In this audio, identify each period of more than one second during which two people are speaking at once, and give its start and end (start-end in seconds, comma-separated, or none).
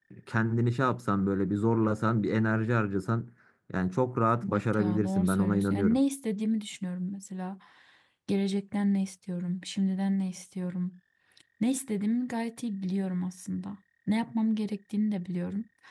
4.5-6.0